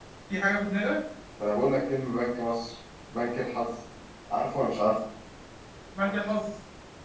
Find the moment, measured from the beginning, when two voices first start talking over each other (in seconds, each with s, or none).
none